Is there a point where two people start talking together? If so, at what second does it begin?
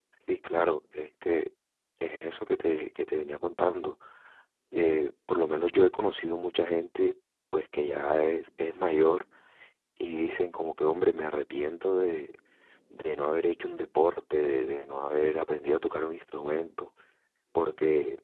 none

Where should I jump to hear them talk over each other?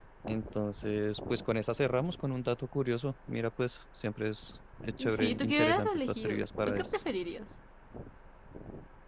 5 s

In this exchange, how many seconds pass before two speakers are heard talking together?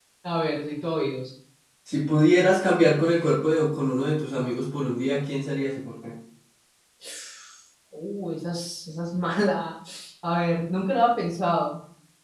none

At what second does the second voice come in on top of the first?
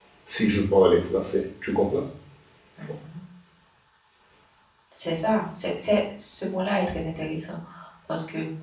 none

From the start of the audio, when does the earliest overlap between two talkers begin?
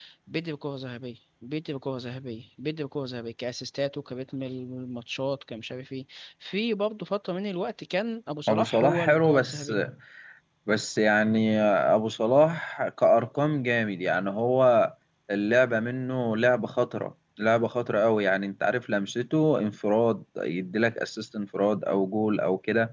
8 s

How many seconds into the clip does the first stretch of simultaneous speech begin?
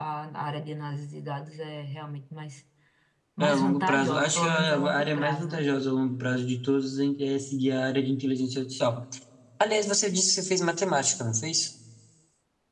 3 s

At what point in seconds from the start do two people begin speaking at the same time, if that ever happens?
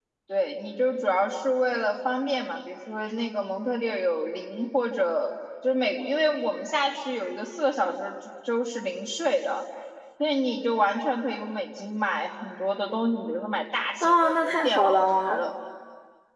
14 s

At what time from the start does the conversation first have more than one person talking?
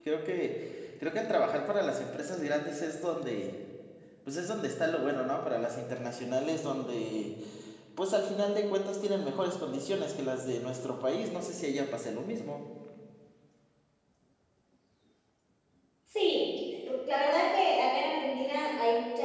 none

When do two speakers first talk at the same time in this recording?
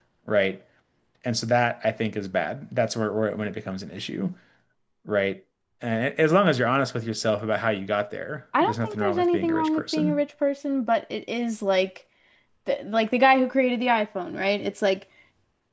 9 s

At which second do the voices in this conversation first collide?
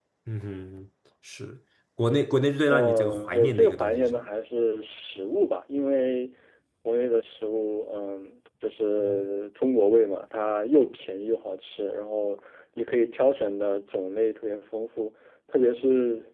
3 s

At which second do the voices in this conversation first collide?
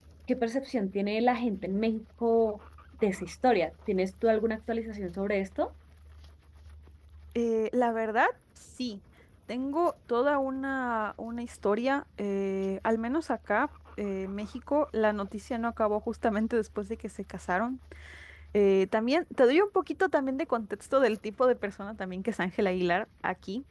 none

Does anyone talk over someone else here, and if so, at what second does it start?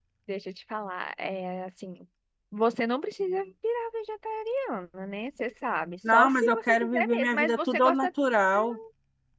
6 s

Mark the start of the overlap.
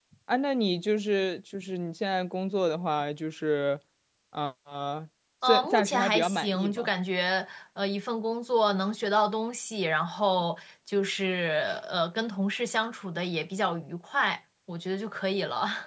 5 s

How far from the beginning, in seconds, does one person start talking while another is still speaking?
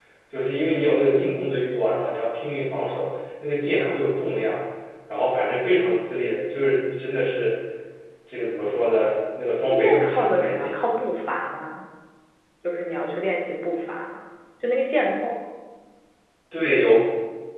10 s

